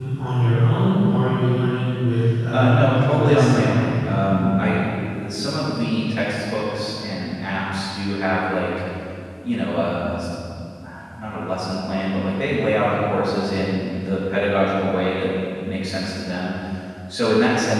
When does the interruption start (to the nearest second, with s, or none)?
3 s